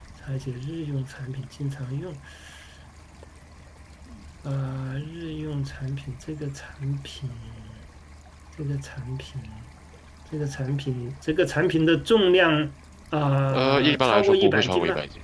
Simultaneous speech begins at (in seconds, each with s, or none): 13.5 s